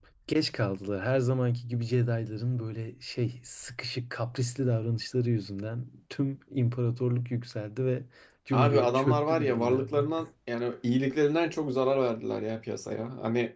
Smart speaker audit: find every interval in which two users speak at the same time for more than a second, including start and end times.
8.5-10.0

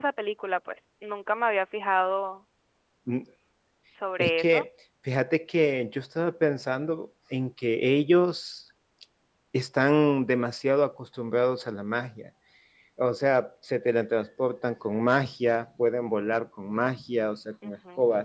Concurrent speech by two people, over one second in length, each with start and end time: none

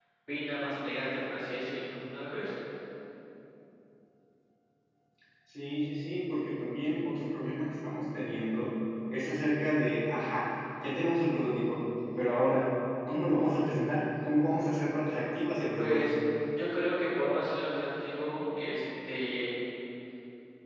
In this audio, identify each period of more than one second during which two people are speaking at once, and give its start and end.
none

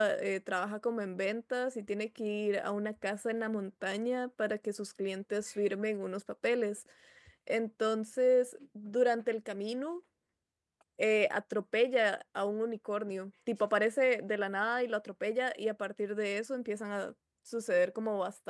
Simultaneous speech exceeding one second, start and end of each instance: none

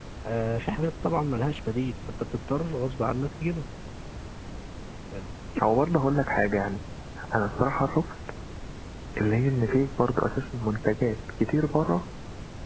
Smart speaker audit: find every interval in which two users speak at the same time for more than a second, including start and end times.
none

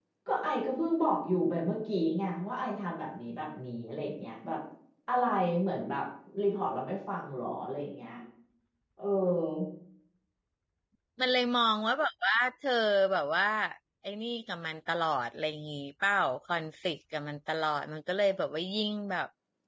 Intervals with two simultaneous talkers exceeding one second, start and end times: none

